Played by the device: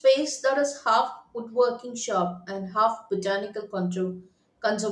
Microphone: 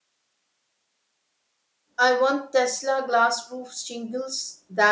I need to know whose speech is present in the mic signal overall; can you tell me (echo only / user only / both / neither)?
user only